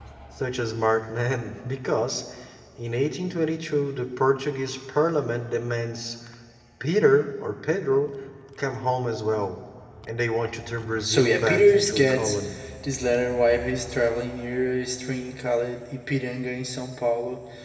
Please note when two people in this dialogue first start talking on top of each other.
11.0 s

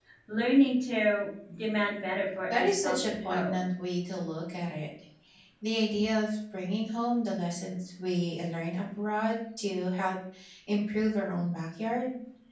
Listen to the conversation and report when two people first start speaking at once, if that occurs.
2.5 s

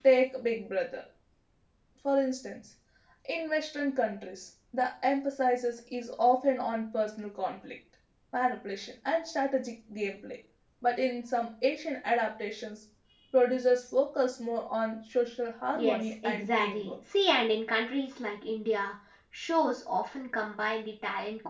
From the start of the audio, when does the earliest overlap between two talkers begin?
15.7 s

